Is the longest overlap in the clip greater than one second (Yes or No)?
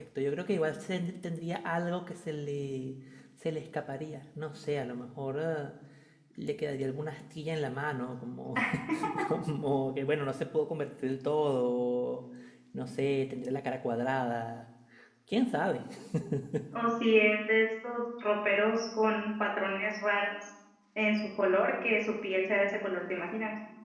No